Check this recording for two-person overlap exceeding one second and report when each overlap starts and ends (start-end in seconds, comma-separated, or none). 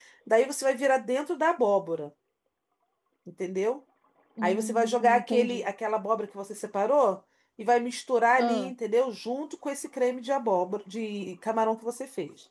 4.4-5.7